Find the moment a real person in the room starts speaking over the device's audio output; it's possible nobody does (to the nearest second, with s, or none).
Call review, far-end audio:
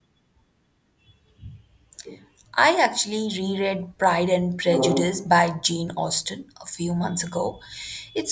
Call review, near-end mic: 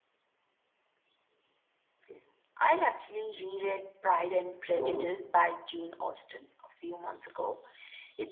none